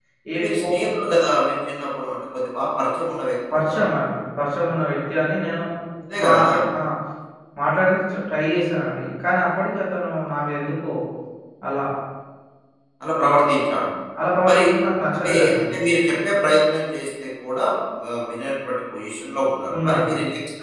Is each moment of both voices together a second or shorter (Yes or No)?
Yes